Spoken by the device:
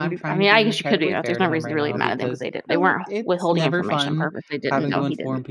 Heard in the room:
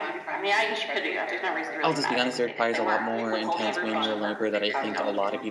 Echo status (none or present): present